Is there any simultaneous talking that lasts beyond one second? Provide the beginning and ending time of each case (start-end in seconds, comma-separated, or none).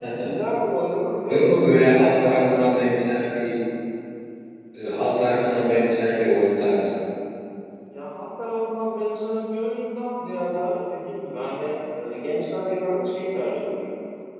1.3-2.6